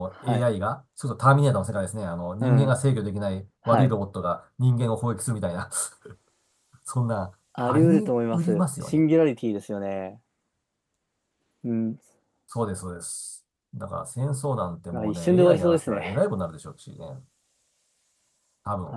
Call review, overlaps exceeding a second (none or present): present